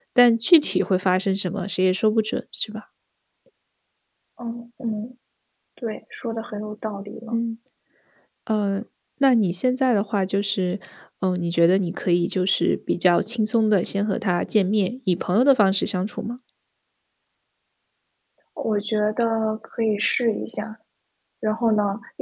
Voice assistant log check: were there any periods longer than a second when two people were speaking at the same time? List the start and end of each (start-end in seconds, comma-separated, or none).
none